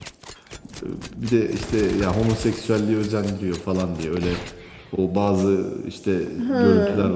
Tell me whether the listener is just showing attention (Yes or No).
Yes